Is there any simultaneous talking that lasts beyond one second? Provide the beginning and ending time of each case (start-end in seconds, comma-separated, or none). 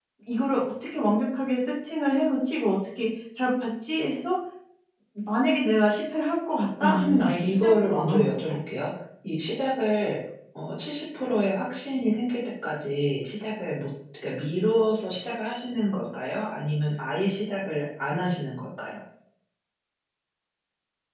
6.8-8.6